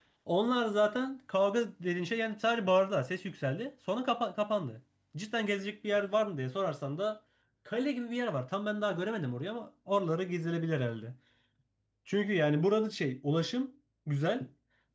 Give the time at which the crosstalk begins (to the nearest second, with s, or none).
none